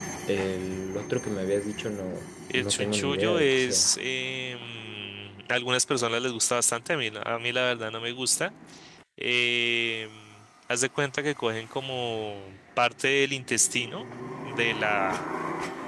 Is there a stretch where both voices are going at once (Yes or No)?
Yes